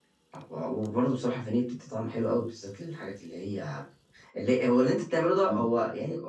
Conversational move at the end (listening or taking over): listening